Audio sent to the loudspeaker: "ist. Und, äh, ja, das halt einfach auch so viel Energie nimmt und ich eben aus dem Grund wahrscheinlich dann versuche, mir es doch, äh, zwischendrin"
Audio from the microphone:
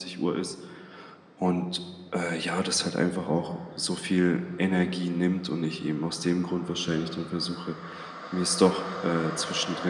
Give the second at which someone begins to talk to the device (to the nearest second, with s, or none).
none